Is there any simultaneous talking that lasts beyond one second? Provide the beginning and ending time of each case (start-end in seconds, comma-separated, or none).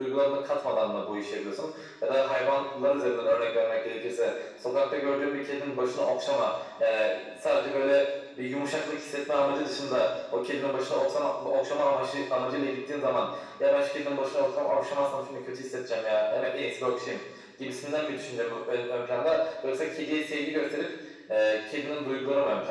none